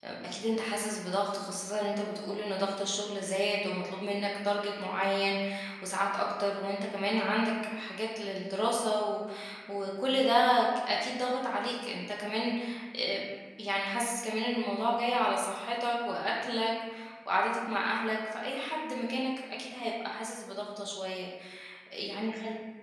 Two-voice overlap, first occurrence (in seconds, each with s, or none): none